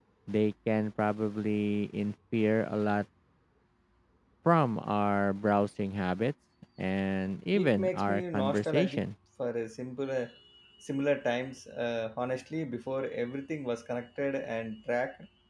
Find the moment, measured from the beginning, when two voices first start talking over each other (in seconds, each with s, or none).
7.5 s